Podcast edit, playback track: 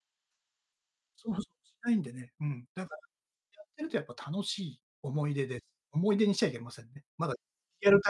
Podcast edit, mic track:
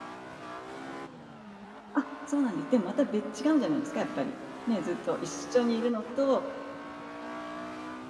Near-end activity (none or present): present